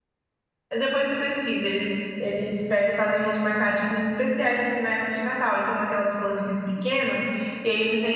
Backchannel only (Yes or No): Yes